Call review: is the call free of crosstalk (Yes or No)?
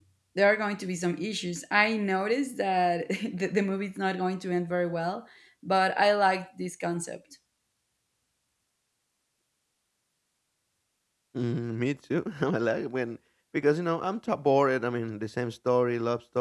Yes